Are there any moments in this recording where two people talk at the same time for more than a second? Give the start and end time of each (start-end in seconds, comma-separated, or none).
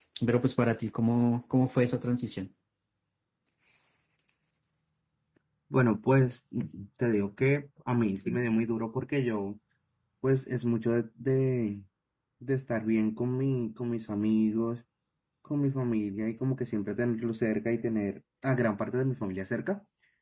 none